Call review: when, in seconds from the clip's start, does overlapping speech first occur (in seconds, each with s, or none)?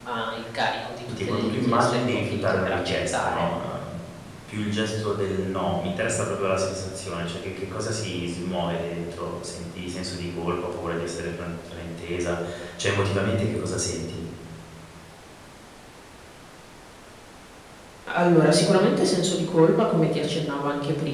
1.1 s